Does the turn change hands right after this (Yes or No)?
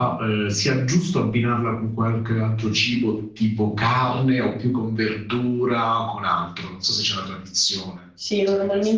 Yes